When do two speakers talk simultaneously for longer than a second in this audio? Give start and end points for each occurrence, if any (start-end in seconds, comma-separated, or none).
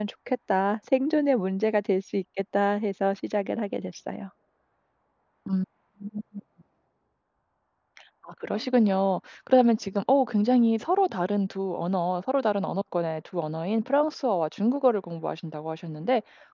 none